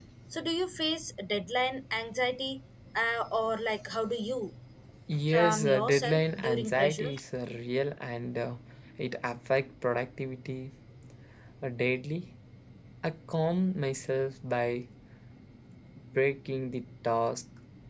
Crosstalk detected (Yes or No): Yes